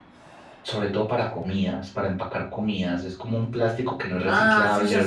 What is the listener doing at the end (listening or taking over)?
taking over